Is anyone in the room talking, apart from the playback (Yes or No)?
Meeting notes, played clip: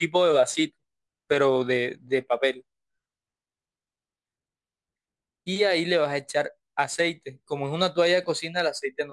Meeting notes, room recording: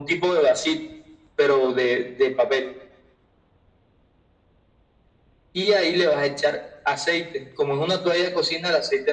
No